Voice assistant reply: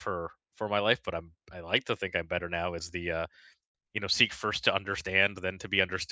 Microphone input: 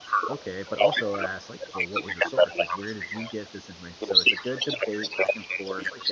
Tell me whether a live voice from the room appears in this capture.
Yes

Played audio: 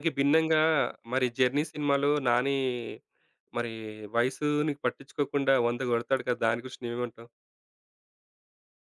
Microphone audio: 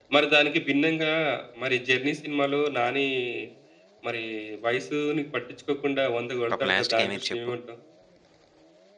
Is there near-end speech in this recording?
Yes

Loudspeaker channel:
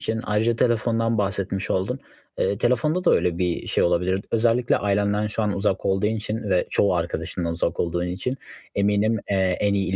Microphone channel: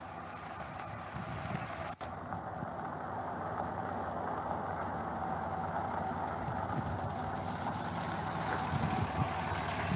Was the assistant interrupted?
No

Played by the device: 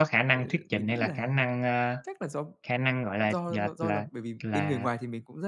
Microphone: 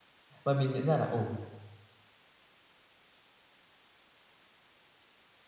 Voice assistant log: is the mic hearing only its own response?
No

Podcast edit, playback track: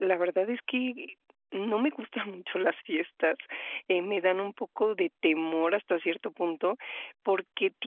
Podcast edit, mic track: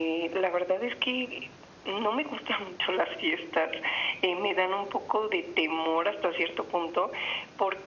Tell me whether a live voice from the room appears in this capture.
No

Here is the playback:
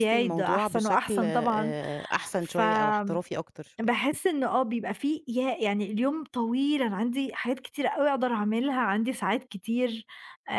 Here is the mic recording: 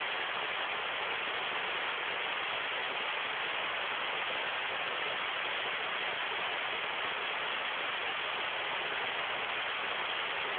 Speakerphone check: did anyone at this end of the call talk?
No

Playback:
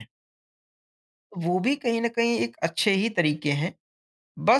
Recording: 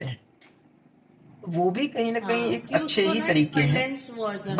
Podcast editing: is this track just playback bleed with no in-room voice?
No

